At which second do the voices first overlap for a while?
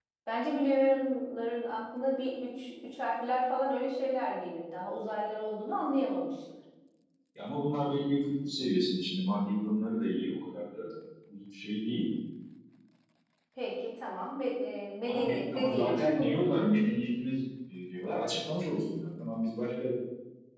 15.1 s

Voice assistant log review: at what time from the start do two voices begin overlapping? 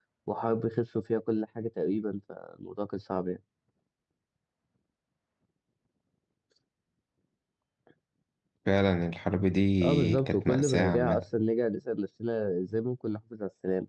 9.8 s

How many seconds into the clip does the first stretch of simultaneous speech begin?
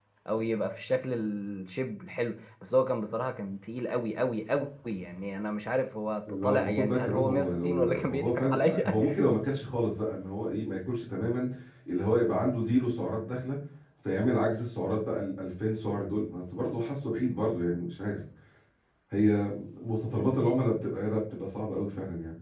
6.3 s

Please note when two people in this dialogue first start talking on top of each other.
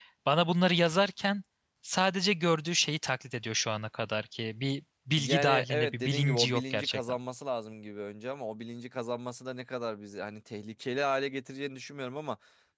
5.2 s

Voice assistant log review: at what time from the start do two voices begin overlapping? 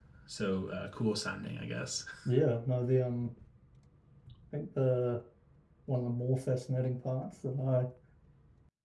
none

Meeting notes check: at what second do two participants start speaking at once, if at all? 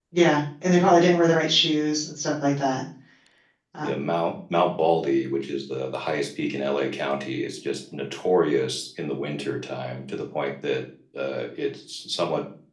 none

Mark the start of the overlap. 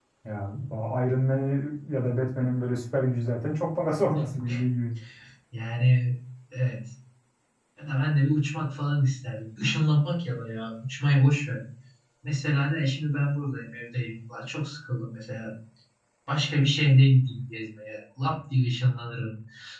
none

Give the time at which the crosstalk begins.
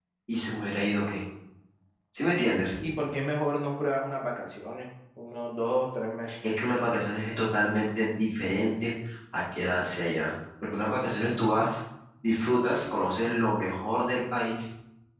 none

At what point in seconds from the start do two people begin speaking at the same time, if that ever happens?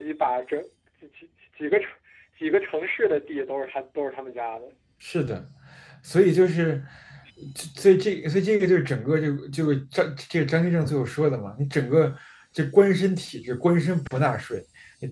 none

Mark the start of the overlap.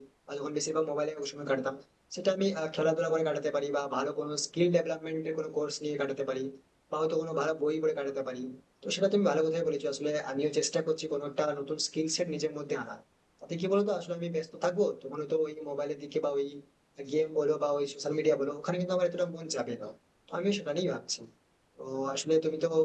none

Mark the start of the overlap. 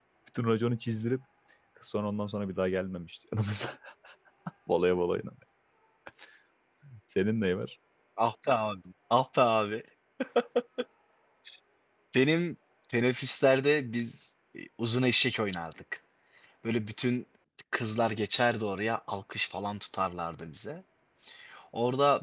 none

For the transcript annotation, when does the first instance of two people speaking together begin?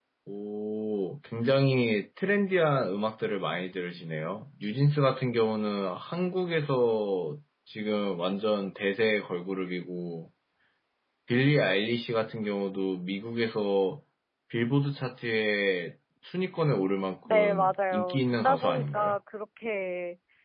17.2 s

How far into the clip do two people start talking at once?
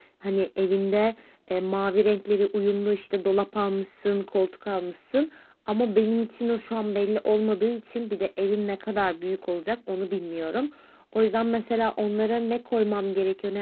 none

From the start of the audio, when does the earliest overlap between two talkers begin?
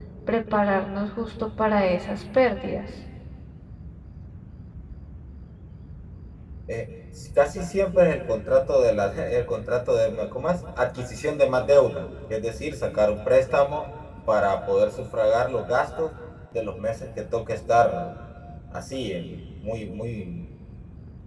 none

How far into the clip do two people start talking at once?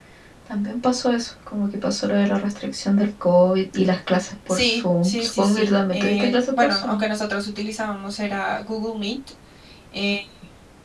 4.5 s

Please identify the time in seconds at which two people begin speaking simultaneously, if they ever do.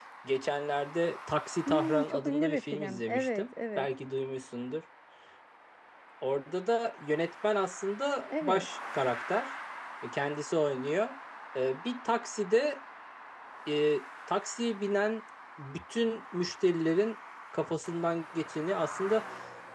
1.7 s

